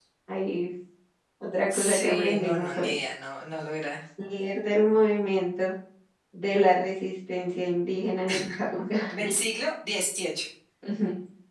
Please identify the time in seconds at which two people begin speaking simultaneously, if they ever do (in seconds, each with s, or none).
1.7 s